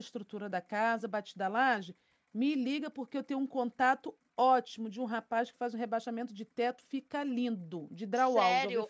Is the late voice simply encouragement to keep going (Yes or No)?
No